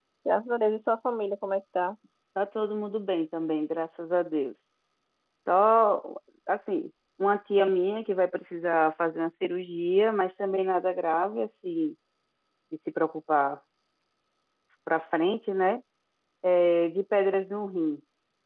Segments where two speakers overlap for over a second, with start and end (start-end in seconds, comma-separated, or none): none